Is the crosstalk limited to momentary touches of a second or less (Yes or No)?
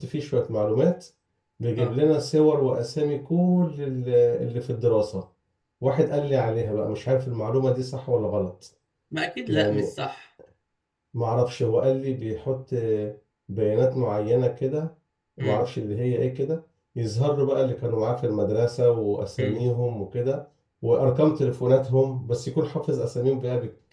Yes